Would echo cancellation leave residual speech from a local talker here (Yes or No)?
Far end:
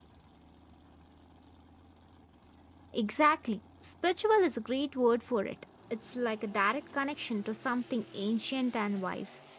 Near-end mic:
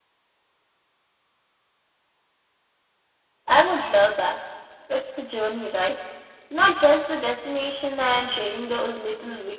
Yes